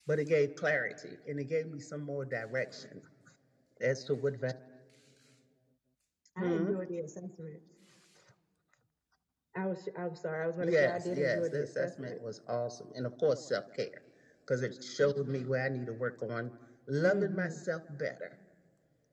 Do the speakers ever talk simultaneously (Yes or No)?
Yes